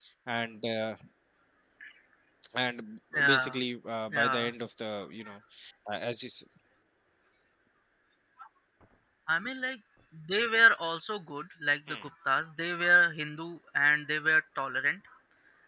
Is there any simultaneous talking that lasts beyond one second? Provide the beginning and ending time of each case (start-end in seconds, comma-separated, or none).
none